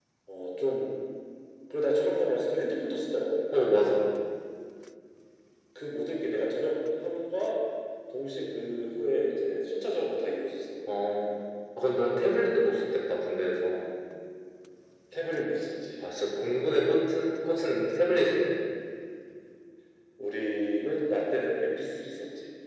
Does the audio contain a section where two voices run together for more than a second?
No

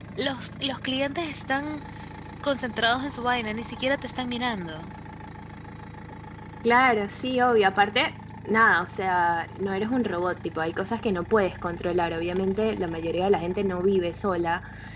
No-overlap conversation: Yes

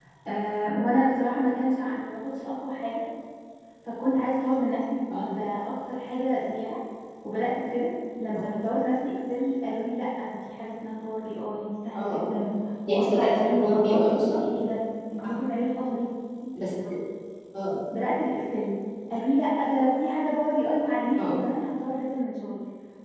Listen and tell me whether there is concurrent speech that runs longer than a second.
Yes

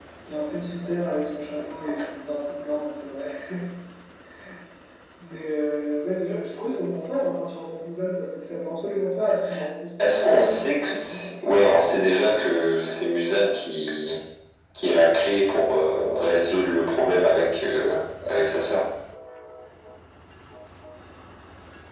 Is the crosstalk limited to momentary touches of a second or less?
No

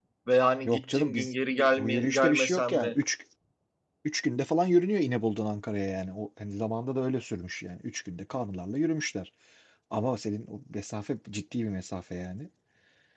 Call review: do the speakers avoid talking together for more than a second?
No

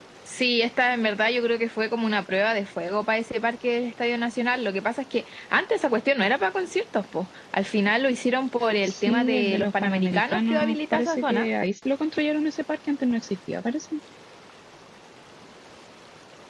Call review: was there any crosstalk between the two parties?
Yes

